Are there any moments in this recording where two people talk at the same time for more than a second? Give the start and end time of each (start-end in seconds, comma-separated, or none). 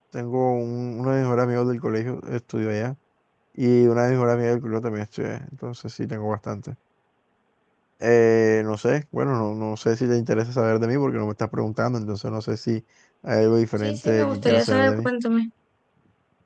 13.8-15.1